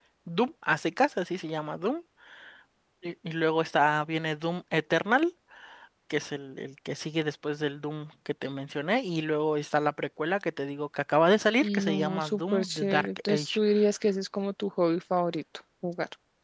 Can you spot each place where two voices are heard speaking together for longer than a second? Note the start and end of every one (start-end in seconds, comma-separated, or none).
11.6-13.6